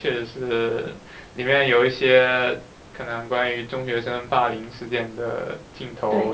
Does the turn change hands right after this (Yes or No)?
Yes